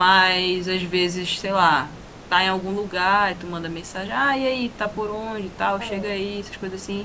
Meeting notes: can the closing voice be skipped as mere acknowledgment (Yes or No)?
Yes